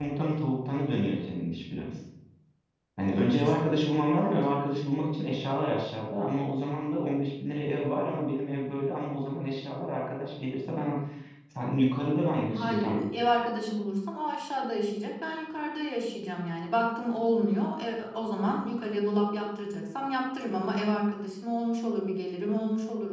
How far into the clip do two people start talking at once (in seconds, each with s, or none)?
3.0 s